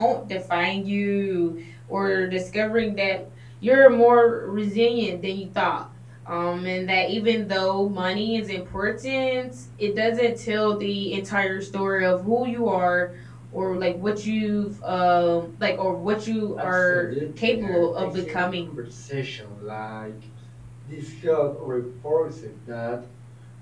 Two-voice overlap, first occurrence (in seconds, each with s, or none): 16.6 s